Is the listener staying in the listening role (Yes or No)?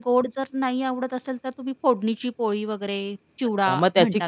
No